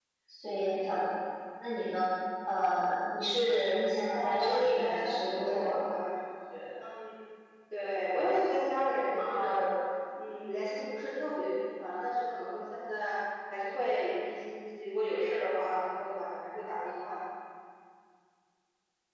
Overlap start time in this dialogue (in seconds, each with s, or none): 4.1 s